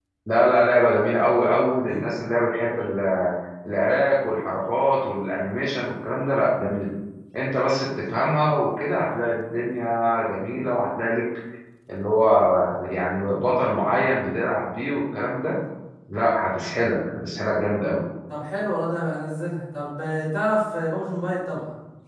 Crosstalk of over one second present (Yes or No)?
No